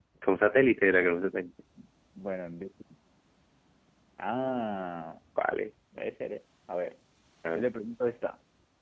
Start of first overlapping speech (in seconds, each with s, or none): none